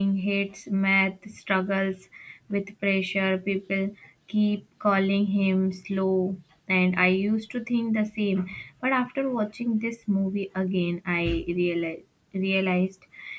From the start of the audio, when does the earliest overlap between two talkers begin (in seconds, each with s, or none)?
none